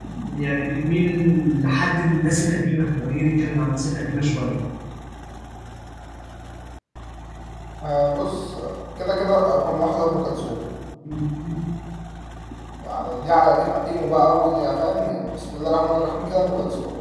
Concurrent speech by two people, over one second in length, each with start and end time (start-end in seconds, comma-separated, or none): none